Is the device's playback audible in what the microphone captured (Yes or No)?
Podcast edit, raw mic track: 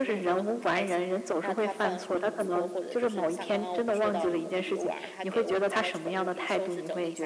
Yes